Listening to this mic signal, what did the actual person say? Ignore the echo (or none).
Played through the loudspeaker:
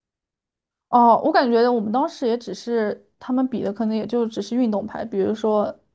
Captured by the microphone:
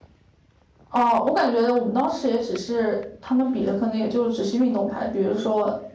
none